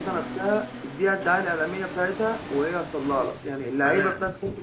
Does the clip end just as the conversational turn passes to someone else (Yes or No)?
No